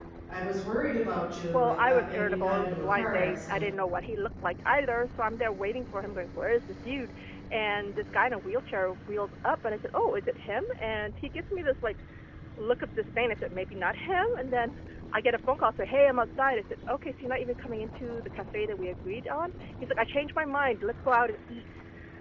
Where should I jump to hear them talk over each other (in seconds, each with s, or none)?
1.5 s